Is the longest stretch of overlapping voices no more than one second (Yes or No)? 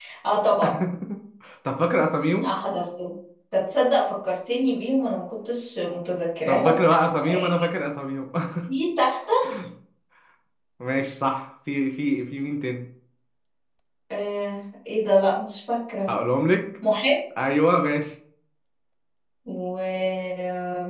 Yes